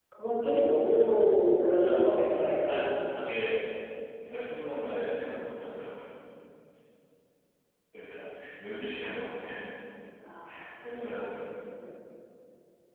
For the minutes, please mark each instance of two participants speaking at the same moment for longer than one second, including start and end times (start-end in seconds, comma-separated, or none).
1.6-2.9